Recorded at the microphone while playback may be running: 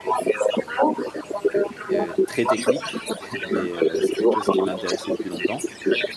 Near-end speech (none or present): present